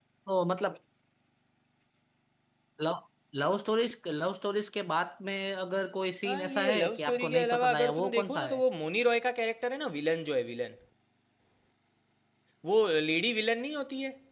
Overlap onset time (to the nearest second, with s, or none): 6 s